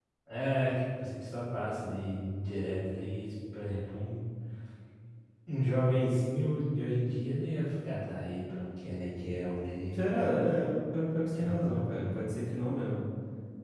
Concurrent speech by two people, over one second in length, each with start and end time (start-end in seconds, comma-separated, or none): none